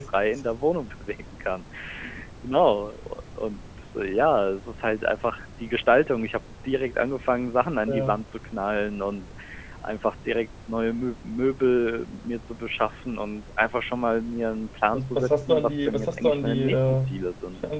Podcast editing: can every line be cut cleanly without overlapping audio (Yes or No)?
No